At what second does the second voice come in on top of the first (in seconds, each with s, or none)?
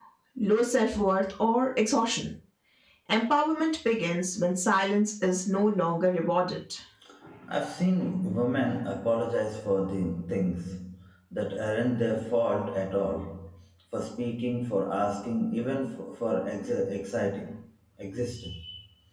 none